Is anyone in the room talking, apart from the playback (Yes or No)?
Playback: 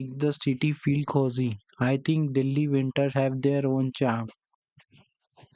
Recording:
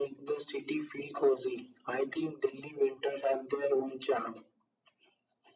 No